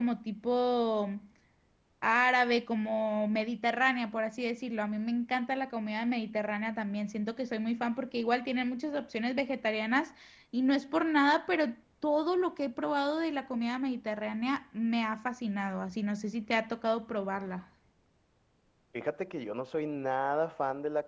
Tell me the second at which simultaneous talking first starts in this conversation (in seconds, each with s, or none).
none